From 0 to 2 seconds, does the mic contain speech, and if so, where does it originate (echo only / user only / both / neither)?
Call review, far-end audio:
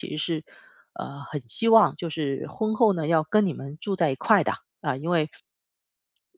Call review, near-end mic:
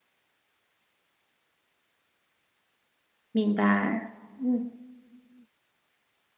neither